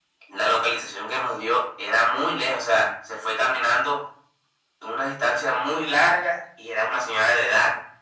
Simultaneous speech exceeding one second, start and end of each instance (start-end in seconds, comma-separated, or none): none